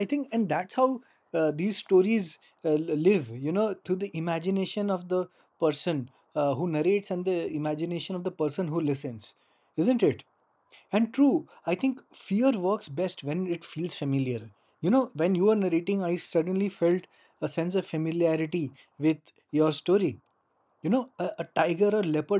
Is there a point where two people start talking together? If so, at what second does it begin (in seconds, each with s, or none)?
none